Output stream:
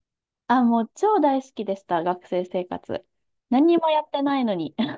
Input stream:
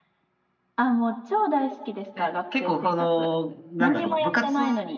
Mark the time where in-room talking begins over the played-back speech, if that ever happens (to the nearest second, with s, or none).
2 s